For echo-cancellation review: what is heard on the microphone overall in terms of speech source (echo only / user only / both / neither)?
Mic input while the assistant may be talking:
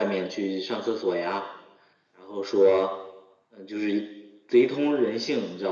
echo only